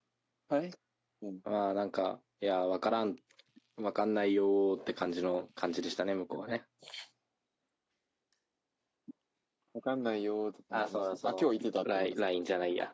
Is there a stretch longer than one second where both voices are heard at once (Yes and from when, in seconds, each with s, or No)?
Yes, from 10.7 s